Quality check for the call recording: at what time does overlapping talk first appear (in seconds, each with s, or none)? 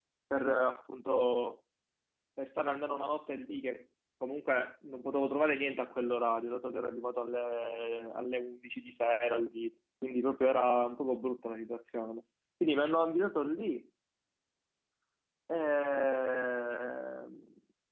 none